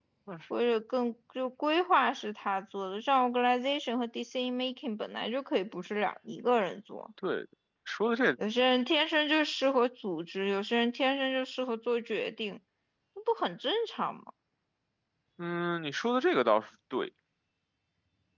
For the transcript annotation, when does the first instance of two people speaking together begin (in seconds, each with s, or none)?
none